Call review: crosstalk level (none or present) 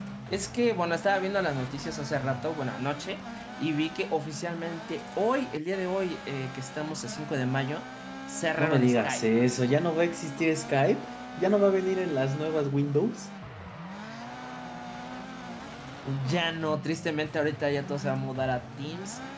present